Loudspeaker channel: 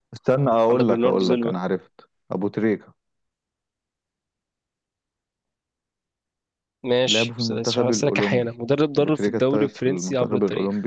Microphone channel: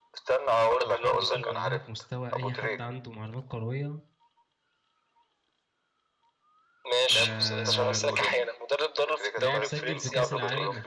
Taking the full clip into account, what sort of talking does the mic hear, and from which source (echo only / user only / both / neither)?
both